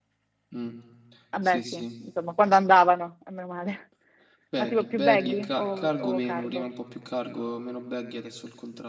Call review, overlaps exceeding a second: present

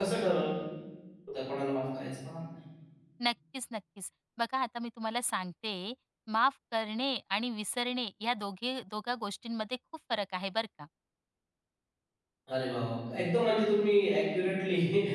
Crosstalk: none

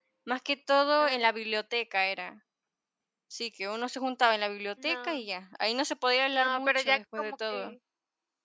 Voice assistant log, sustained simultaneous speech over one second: present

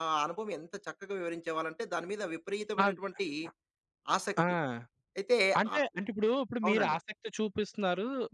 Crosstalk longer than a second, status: none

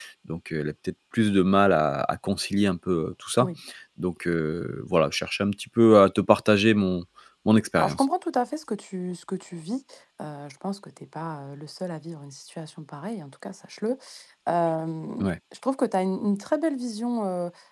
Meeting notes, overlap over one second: none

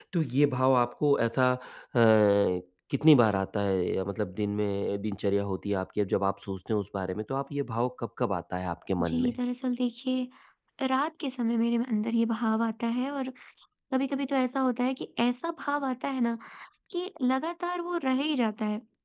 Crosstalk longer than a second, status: none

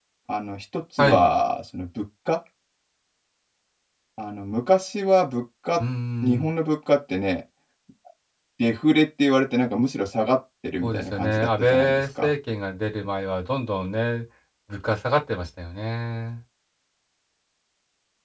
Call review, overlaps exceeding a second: present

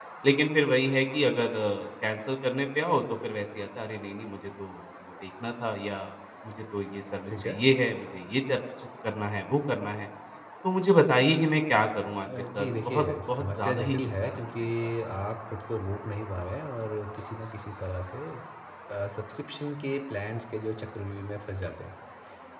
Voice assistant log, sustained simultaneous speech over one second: present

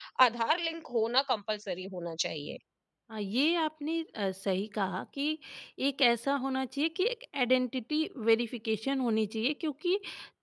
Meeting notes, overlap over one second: none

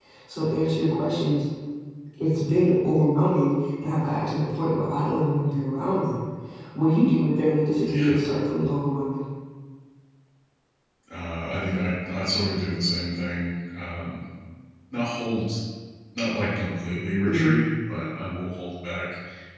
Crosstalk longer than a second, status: none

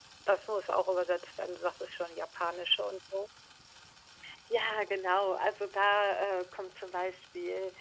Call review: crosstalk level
none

